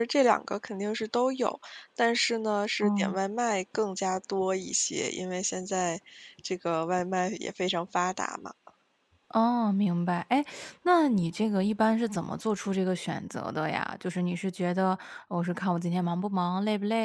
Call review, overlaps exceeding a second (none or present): none